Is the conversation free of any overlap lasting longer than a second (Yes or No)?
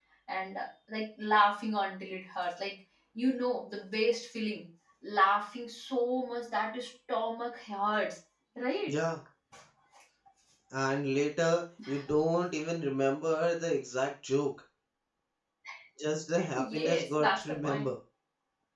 No